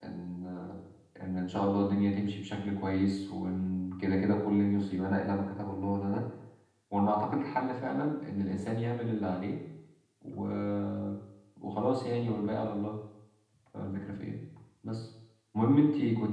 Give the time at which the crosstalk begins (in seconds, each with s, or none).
none